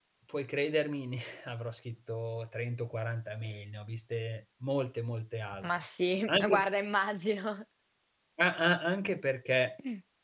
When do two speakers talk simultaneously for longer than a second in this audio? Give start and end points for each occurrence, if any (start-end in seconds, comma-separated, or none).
none